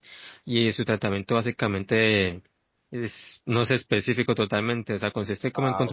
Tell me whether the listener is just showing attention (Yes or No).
Yes